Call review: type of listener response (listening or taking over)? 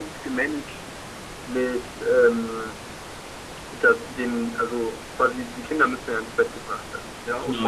listening